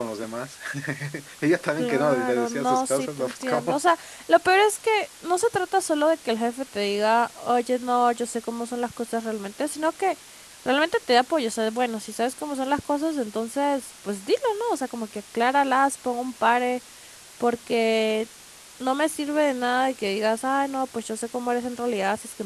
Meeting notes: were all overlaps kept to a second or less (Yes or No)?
No